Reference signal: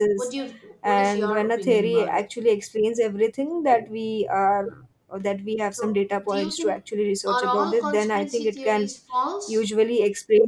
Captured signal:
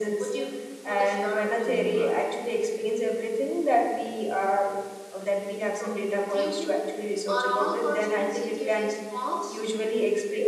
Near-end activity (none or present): none